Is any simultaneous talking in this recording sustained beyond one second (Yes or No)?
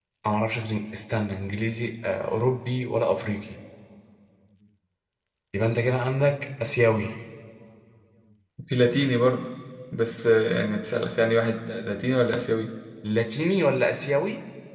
No